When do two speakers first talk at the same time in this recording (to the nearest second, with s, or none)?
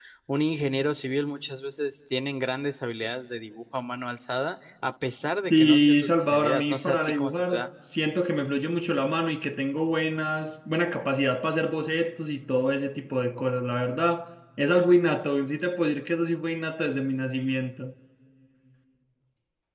6 s